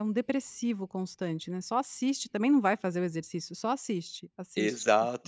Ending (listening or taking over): taking over